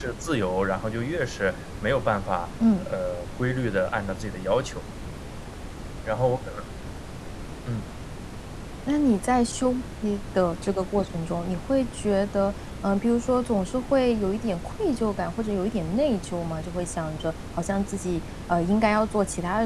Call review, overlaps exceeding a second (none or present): none